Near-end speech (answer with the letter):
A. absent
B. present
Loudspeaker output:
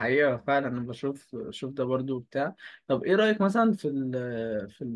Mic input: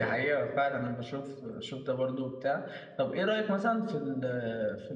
A